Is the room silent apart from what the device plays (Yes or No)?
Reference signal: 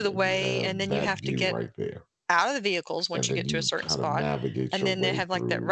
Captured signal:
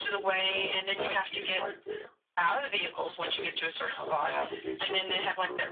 Yes